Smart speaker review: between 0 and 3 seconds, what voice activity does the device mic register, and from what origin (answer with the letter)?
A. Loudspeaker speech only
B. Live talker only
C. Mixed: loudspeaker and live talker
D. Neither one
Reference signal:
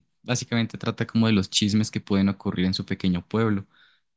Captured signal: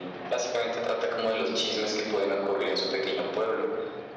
A